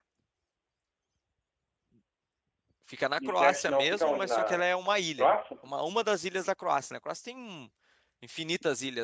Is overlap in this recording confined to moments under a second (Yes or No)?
No